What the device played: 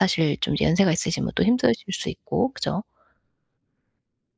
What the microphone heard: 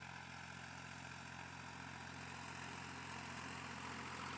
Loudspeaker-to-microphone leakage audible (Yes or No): No